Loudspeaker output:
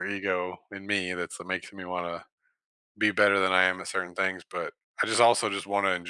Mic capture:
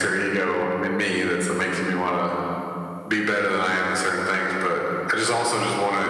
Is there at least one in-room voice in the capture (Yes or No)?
No